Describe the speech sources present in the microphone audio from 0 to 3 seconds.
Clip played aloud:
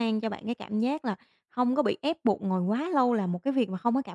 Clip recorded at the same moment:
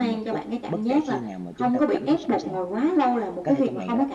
both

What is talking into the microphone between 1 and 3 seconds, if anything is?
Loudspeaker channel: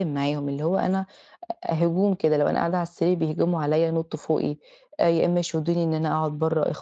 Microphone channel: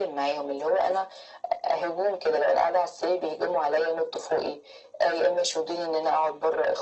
echo only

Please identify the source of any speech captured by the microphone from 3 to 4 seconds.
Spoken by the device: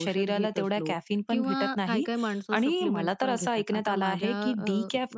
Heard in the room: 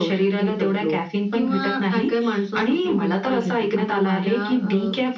echo only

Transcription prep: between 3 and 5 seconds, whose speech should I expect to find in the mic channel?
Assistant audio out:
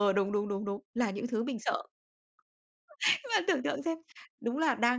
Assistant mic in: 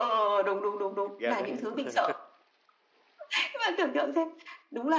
echo only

